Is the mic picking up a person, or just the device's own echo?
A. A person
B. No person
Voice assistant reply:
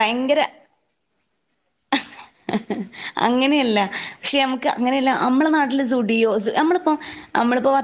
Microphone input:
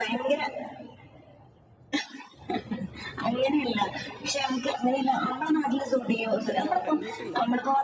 A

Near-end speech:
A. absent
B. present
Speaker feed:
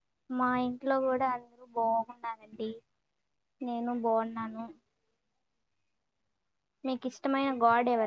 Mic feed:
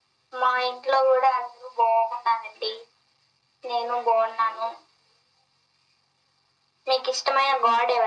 A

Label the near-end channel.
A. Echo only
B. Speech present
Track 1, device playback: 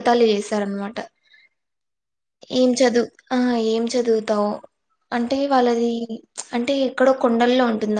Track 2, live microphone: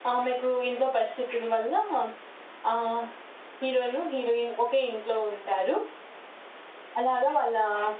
B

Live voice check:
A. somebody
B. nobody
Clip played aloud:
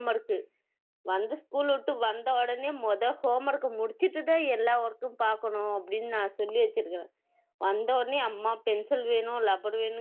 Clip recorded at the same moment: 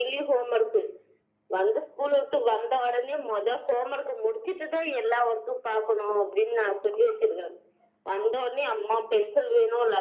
B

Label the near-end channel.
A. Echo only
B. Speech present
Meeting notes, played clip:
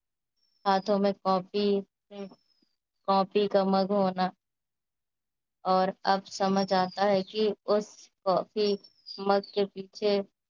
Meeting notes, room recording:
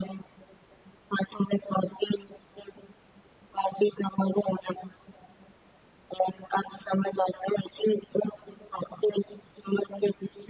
A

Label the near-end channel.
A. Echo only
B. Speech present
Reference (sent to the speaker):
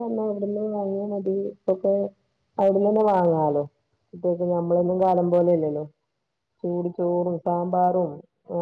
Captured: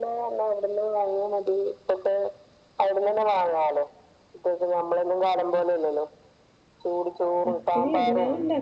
B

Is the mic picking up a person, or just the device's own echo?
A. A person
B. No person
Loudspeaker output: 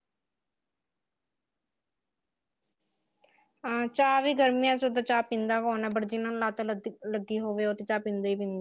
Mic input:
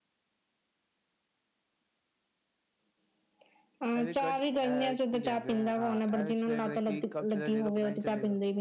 A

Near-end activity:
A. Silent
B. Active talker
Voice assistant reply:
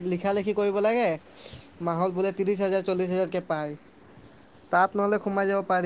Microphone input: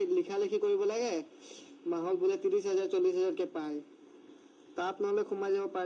A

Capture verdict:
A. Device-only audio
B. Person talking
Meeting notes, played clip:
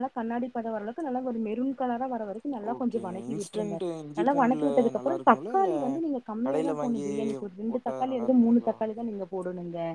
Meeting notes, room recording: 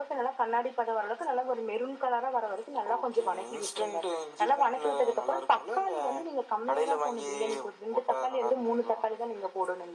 A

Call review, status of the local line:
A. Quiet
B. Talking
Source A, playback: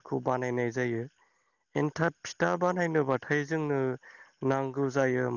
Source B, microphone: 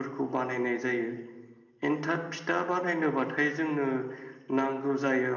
A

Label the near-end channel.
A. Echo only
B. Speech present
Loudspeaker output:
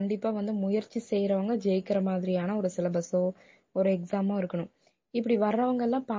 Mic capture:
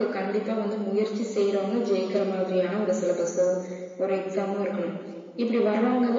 A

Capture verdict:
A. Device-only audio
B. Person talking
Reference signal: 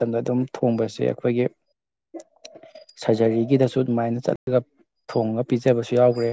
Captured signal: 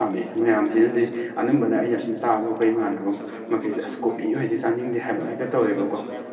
B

